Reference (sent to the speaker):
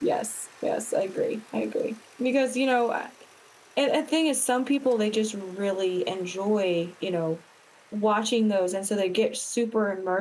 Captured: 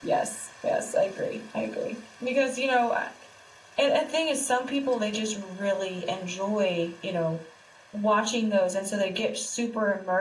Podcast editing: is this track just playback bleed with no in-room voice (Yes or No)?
Yes